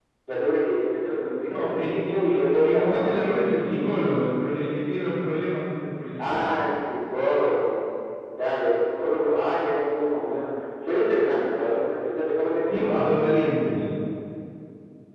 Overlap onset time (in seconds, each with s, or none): 1.6 s